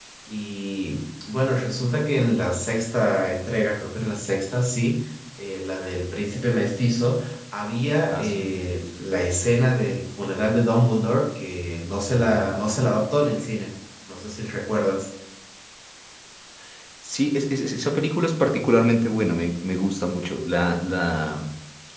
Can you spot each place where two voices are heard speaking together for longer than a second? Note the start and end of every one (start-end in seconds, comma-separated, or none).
none